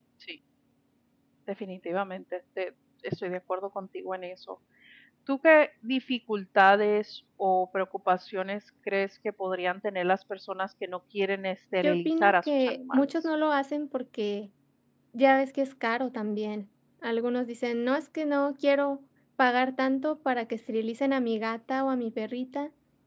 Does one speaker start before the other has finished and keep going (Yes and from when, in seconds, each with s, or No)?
Yes, from 11.8 s